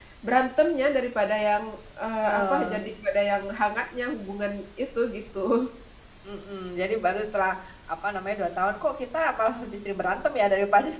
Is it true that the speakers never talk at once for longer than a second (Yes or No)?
Yes